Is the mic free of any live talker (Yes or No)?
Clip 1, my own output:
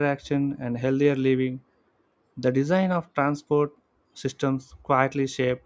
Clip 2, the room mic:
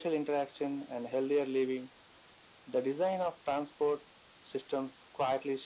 Yes